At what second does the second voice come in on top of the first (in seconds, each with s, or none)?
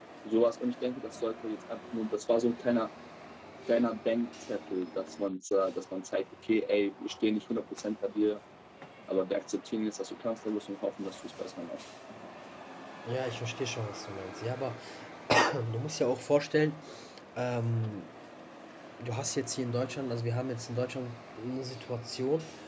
none